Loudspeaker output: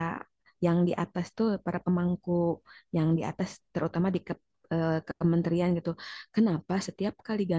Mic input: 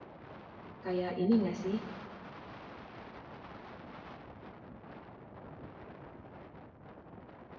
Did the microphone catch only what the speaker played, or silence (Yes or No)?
No